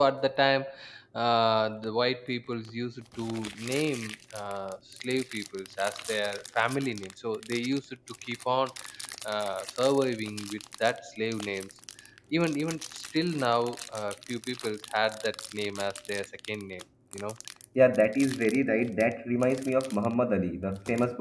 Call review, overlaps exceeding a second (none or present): none